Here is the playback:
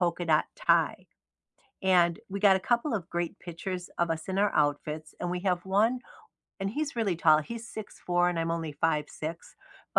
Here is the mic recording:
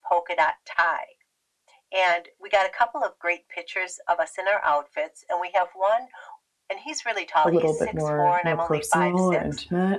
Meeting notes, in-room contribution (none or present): present